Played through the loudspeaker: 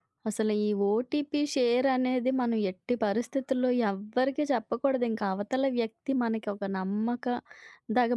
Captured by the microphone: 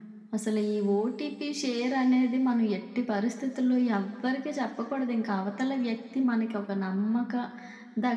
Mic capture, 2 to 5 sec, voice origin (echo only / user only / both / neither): echo only